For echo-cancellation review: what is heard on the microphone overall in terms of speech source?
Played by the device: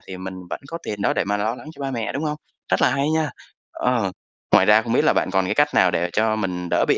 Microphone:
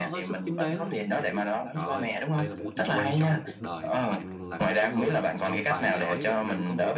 both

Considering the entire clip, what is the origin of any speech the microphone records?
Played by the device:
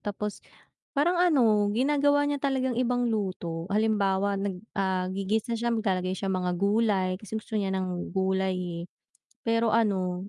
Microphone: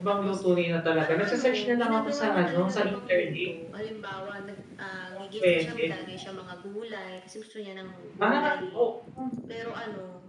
both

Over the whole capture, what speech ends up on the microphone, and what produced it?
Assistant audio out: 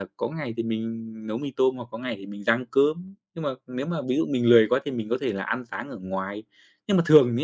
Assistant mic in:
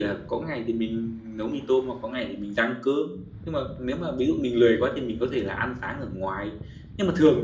echo only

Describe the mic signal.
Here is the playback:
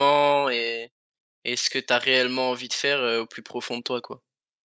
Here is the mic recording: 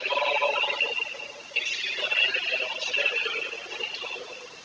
echo only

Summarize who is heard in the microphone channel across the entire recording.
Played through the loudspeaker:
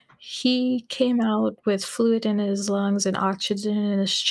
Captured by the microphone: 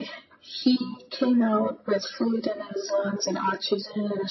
echo only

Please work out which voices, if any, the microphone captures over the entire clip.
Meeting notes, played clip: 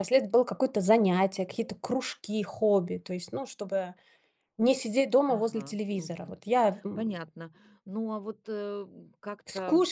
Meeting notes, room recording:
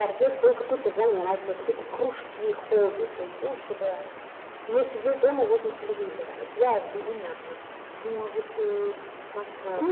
echo only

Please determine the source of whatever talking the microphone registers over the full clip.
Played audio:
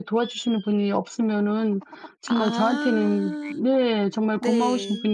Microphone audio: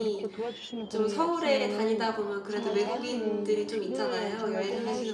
both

